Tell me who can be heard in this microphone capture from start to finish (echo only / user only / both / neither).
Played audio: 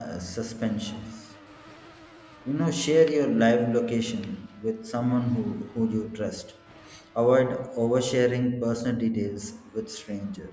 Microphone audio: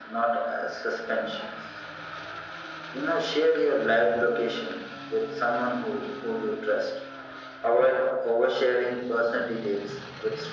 echo only